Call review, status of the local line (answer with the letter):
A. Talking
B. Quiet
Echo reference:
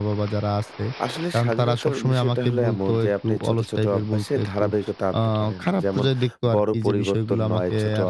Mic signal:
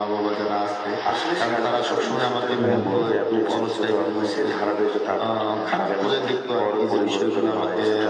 A